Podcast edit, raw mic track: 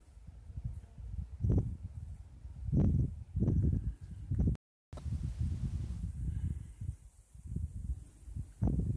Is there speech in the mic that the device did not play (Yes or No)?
No